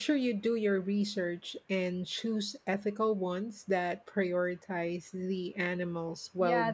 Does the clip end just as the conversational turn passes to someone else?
Yes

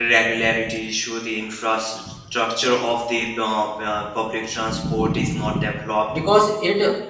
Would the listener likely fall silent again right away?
No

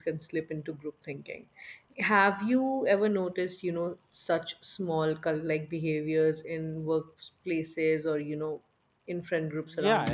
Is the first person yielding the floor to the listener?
Yes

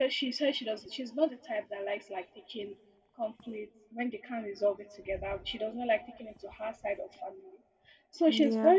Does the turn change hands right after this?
No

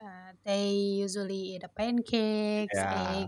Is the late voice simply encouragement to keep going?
Yes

